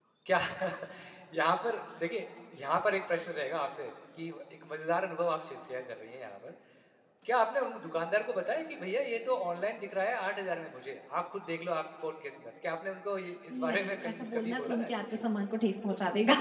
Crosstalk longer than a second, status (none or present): present